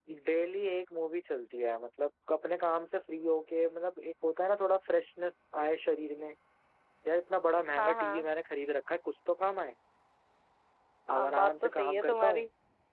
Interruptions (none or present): present